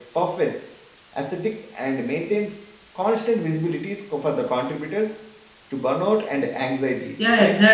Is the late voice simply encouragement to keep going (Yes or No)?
No